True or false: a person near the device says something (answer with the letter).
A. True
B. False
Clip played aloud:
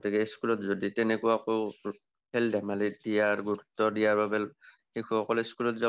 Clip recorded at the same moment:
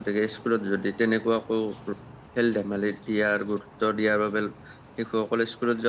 B